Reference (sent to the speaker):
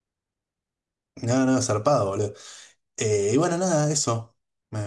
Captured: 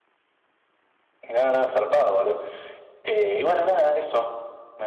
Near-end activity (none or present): none